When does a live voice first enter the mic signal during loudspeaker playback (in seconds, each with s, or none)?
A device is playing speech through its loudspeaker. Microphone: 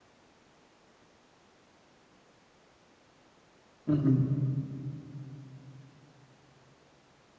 3.9 s